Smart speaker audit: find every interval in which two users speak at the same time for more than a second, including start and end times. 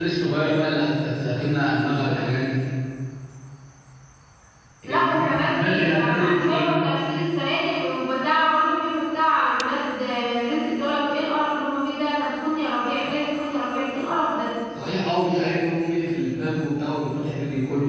4.9-6.8

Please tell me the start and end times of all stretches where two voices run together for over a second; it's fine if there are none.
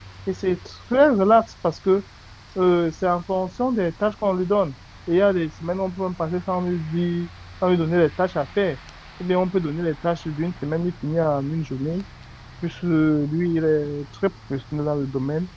none

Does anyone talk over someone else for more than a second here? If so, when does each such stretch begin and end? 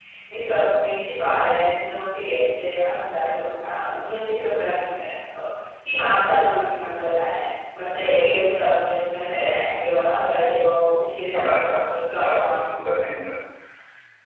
11.3-12.6

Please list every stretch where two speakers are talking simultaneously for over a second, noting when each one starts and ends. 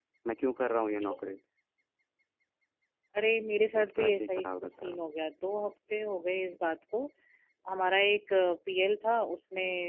3.8-5.0

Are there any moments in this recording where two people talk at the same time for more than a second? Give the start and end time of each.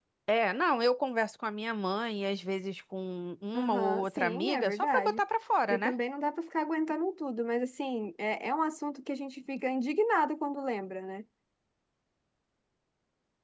3.6-5.2

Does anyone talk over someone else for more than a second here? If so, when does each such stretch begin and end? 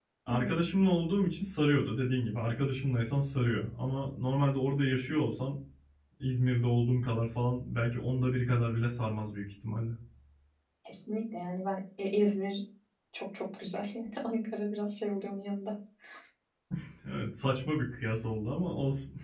none

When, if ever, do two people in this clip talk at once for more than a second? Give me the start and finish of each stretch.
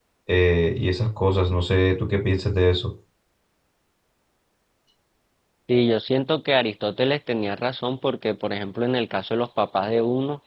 none

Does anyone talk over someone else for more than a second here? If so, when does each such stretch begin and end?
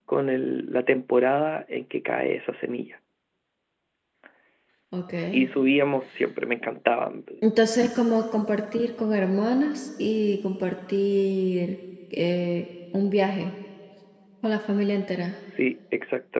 none

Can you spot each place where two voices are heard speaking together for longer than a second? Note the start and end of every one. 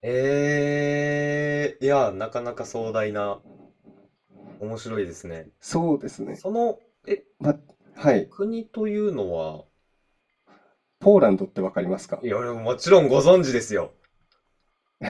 none

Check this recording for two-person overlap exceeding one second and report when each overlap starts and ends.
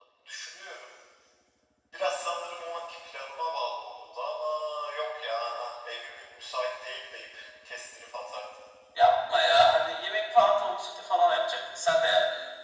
none

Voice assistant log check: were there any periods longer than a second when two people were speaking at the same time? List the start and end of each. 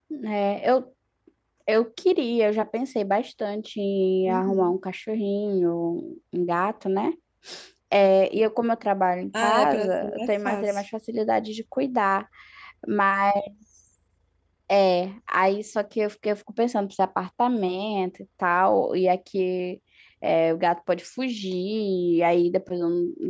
9.3-10.8

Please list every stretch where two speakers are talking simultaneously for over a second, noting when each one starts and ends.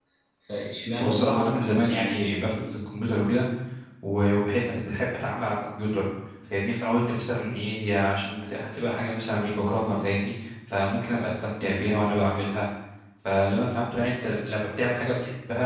1.0-2.3

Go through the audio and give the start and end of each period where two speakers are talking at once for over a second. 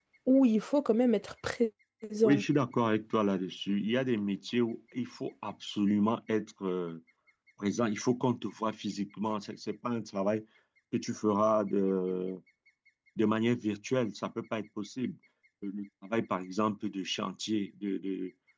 none

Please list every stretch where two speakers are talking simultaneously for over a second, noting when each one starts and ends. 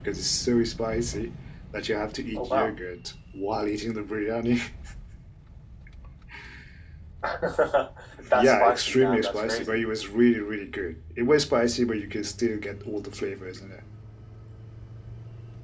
8.3-9.8

